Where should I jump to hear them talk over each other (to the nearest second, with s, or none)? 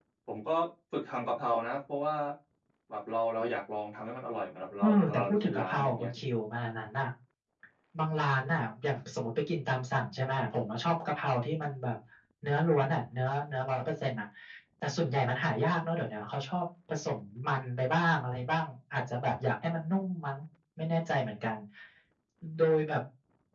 5 s